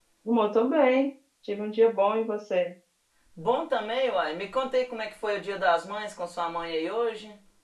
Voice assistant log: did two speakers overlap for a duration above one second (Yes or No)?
No